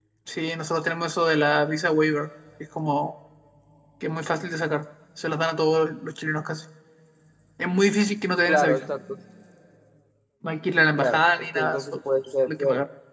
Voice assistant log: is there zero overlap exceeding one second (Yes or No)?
No